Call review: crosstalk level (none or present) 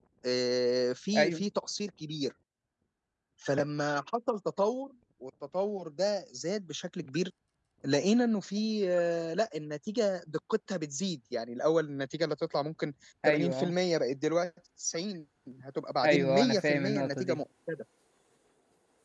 present